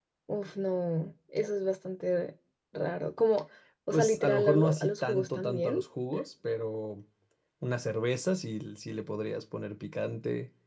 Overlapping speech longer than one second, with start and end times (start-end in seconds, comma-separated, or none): 3.9-5.8